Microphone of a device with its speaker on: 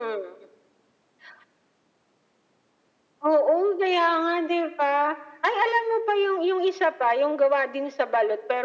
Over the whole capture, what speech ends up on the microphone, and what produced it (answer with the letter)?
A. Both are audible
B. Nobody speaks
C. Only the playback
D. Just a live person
C